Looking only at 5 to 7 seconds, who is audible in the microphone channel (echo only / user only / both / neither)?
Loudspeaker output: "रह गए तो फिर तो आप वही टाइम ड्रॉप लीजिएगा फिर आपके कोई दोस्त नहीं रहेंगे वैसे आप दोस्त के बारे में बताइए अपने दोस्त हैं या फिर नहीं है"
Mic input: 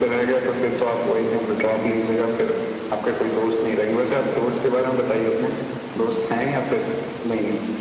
echo only